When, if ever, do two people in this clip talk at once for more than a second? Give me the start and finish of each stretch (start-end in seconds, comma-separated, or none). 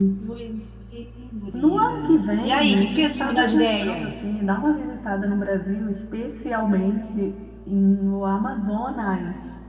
1.5-4.1